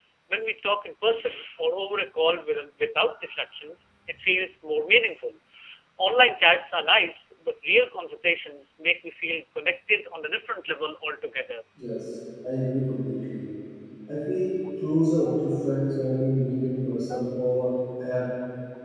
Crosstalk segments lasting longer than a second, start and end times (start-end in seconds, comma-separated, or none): none